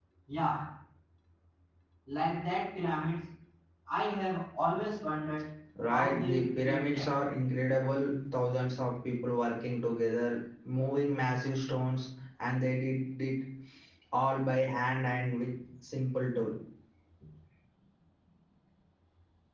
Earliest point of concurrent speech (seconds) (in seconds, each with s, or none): 5.9 s